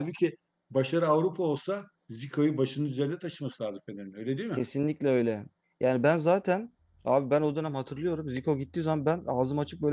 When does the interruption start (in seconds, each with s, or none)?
none